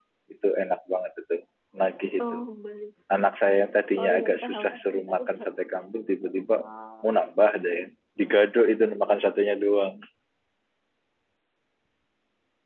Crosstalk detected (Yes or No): Yes